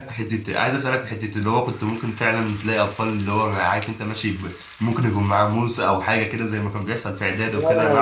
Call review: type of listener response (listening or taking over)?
taking over